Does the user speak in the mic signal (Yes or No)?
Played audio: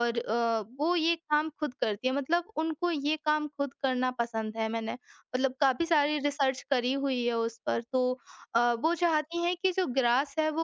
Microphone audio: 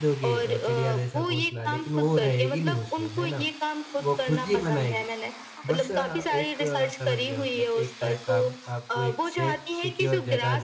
Yes